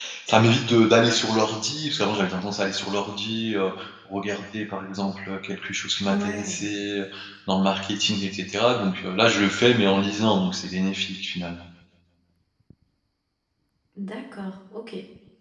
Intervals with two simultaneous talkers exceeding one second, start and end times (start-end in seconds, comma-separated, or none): none